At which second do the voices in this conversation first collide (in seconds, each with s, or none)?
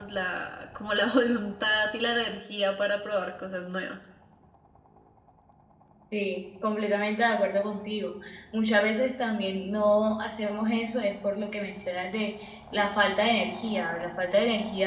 none